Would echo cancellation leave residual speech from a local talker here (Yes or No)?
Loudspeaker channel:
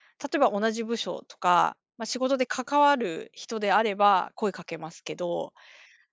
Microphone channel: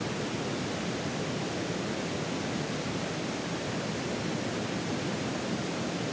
No